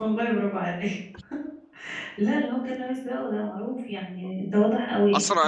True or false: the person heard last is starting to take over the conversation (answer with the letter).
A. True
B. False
A